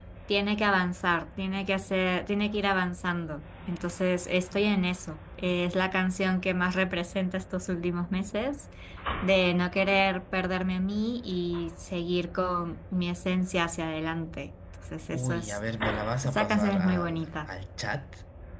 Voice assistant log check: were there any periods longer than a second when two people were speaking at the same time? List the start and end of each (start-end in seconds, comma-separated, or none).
16.2-17.5